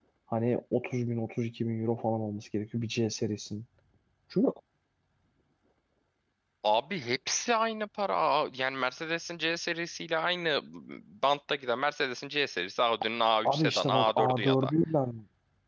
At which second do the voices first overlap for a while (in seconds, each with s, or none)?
13.4 s